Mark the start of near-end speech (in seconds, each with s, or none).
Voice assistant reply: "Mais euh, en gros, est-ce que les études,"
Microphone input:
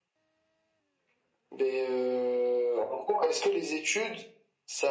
none